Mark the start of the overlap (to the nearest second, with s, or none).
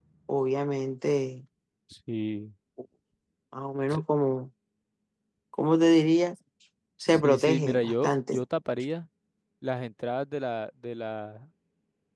7 s